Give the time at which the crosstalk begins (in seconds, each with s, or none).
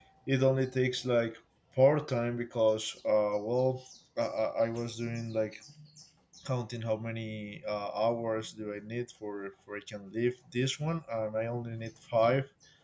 none